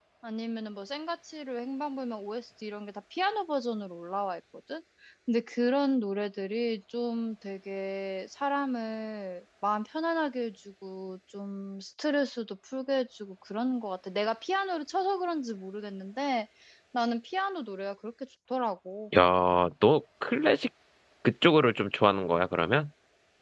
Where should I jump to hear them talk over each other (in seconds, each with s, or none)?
none